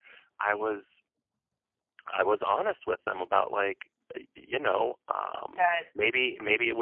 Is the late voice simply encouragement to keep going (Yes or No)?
Yes